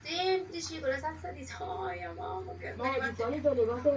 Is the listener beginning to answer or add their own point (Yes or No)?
Yes